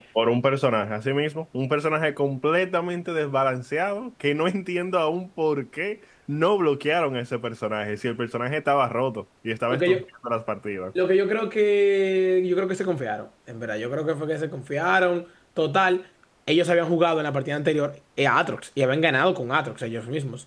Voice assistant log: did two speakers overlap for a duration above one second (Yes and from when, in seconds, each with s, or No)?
No